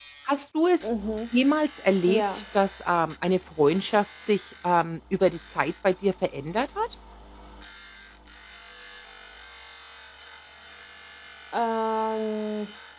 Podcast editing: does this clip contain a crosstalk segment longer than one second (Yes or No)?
No